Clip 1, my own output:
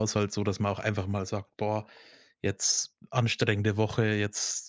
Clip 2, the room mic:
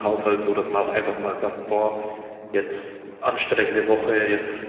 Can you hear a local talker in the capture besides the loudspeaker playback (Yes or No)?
Yes